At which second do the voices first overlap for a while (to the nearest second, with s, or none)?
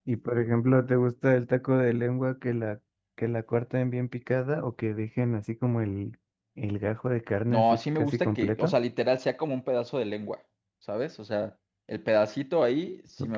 7 s